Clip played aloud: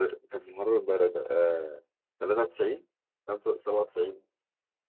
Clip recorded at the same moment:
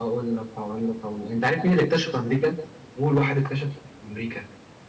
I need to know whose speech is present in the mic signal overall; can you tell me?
user only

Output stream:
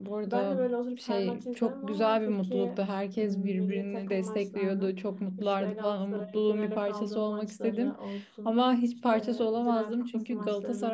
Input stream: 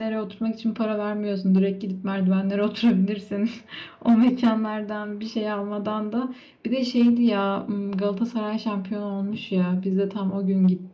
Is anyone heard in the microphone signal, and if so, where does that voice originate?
user only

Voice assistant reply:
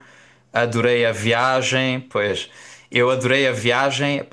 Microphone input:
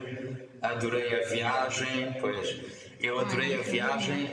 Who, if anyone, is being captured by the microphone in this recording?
both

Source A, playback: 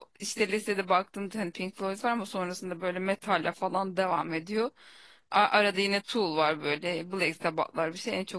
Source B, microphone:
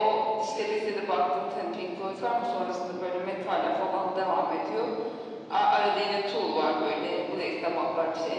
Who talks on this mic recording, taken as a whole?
echo only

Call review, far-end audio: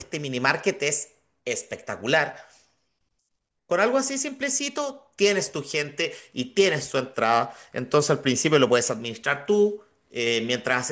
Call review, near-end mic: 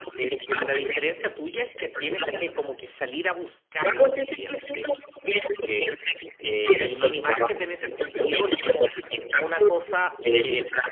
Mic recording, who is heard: both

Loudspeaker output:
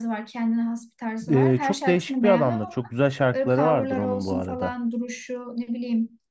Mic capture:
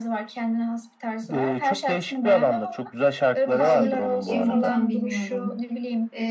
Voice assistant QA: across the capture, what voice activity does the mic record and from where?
both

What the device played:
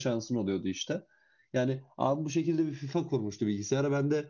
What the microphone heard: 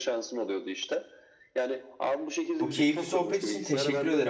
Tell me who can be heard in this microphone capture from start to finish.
both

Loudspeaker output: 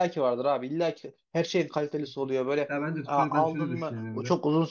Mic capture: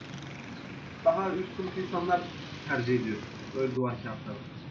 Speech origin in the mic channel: user only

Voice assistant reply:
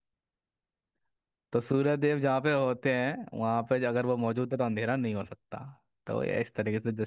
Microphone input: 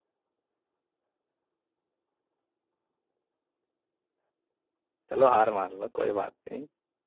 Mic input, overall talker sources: user only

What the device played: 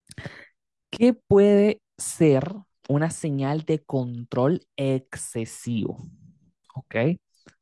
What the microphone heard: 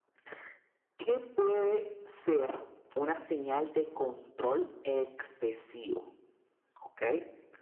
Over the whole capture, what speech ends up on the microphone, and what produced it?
echo only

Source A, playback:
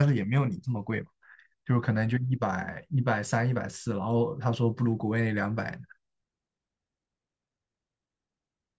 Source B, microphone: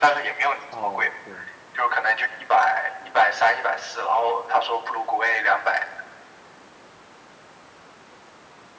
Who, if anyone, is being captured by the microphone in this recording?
both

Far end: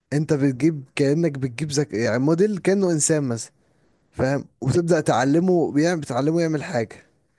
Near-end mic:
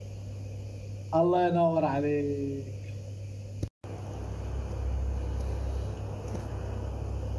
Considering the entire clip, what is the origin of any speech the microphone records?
user only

